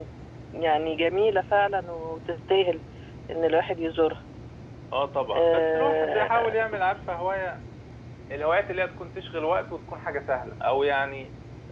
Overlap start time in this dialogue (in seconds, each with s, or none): 5.3 s